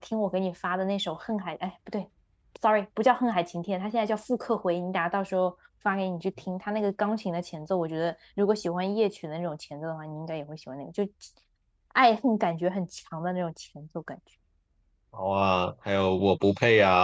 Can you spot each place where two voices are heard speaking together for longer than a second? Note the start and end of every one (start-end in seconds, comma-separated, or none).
none